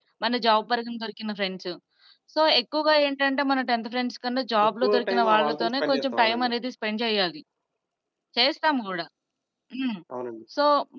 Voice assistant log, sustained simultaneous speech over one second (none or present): present